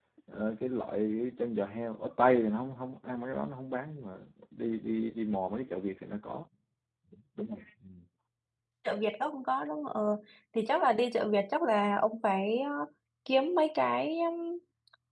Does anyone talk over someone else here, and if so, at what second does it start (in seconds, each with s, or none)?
none